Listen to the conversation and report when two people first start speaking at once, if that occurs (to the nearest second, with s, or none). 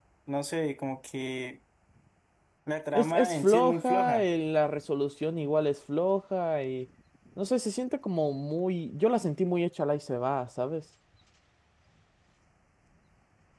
3 s